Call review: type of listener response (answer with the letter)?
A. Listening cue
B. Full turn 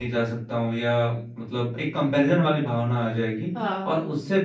A